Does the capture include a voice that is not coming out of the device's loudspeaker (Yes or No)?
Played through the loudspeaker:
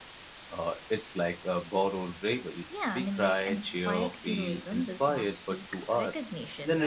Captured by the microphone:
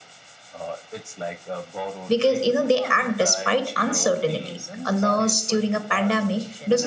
Yes